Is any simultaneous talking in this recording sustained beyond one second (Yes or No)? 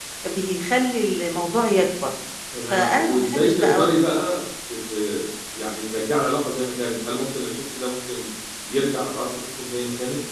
Yes